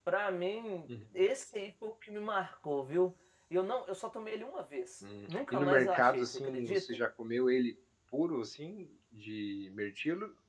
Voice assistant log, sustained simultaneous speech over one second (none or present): present